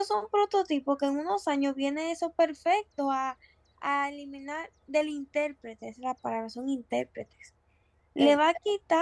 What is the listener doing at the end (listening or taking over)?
listening